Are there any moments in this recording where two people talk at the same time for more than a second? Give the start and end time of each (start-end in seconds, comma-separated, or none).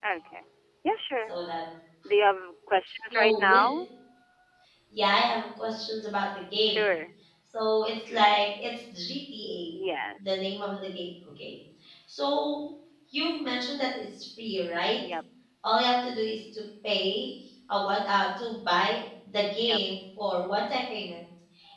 none